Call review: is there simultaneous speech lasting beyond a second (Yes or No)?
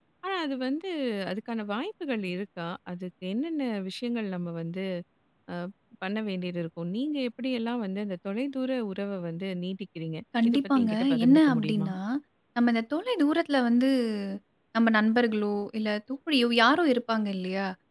Yes